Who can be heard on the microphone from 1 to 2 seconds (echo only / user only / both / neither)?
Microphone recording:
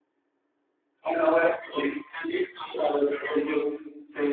echo only